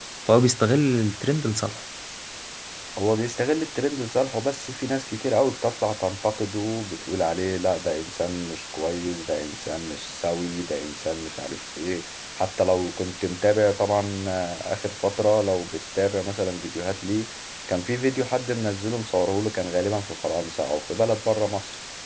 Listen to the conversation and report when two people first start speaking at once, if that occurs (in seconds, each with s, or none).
none